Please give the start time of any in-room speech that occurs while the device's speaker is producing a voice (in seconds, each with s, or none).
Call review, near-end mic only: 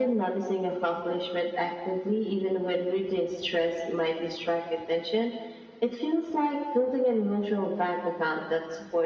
none